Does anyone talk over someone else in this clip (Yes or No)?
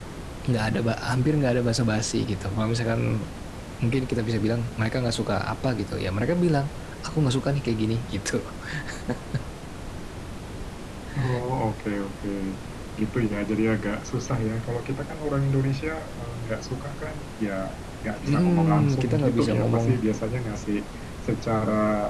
Yes